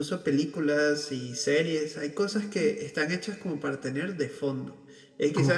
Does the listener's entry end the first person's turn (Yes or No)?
No